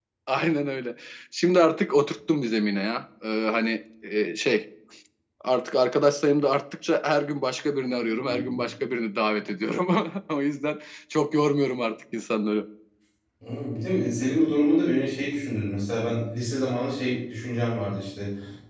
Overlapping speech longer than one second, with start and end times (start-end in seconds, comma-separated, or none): none